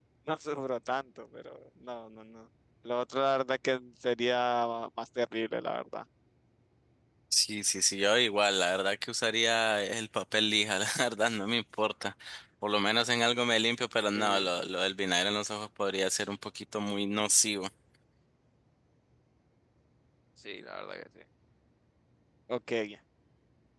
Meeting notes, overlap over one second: none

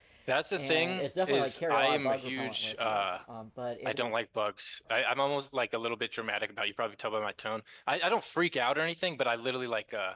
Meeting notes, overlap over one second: present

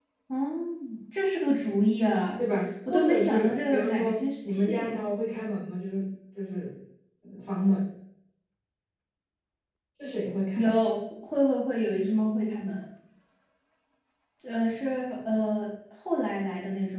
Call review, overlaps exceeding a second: present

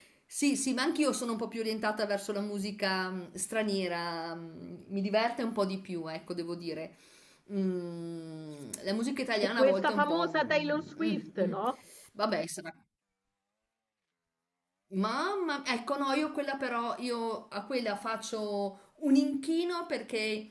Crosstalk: present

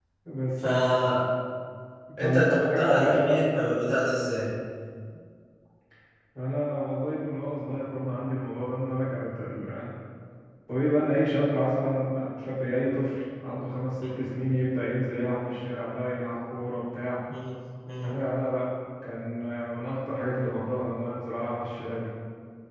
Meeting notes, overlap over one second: present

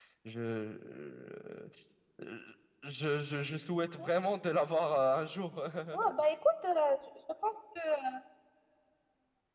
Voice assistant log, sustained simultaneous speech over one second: none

